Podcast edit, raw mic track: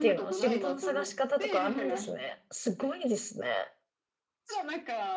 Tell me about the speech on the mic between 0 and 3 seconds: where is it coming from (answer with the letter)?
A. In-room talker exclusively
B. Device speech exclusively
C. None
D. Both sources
D